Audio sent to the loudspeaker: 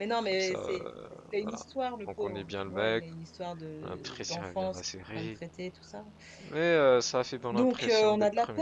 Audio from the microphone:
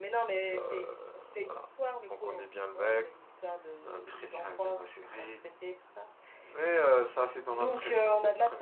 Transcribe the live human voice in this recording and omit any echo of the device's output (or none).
none